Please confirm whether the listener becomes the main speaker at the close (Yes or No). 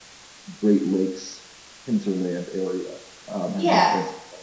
No